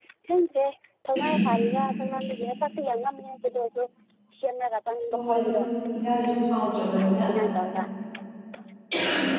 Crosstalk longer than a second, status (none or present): none